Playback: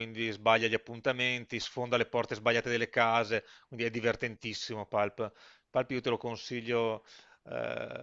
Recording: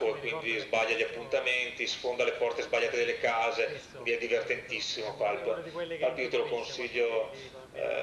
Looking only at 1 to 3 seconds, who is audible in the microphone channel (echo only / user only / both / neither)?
both